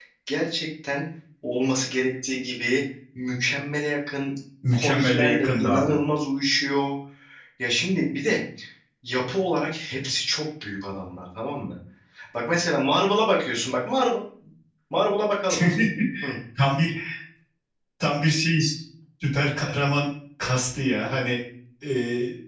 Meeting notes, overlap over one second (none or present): present